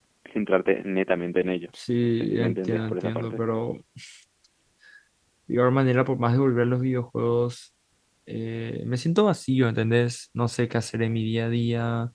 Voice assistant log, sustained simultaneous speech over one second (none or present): present